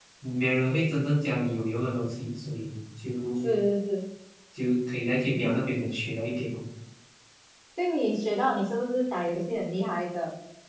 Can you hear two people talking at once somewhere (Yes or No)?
No